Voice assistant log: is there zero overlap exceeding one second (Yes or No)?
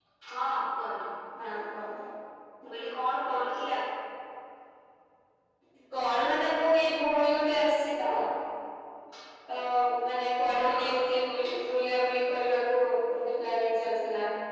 Yes